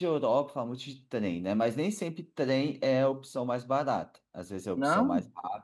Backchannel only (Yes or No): Yes